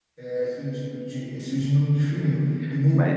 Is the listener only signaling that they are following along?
Yes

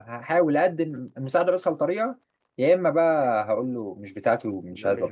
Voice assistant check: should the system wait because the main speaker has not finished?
No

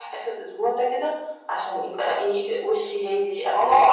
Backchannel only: No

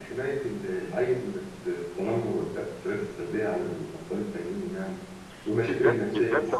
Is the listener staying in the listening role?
No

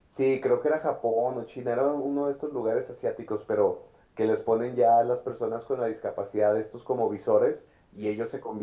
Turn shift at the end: No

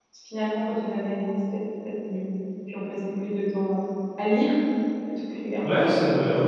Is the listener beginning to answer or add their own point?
Yes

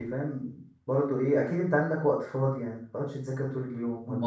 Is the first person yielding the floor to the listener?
Yes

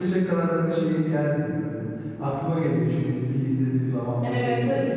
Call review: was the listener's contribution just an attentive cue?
No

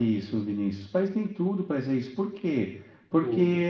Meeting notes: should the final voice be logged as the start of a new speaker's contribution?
No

